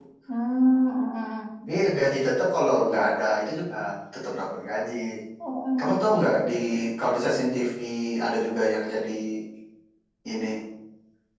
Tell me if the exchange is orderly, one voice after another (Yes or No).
Yes